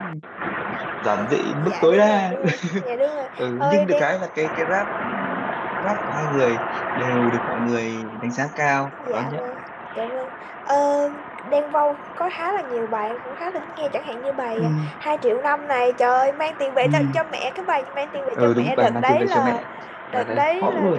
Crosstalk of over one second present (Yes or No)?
Yes